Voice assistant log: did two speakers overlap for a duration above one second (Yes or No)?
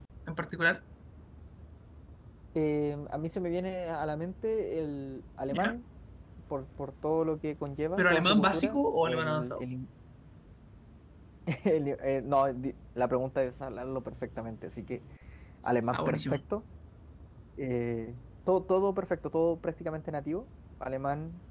Yes